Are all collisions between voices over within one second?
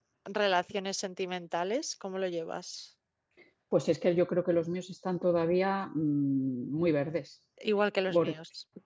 Yes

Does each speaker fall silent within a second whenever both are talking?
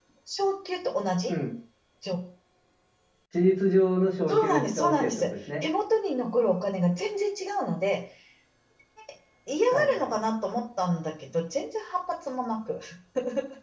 No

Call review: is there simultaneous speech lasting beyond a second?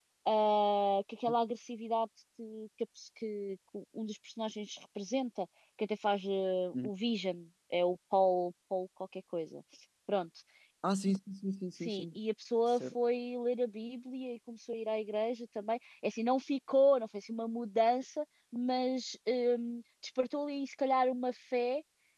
No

